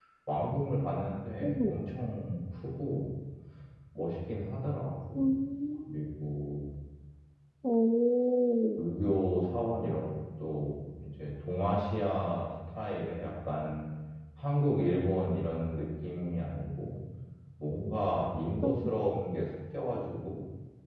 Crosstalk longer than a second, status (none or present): none